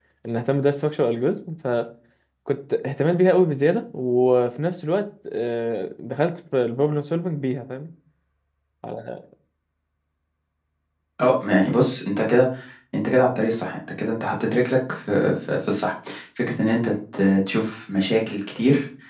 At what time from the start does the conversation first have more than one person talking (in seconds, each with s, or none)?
none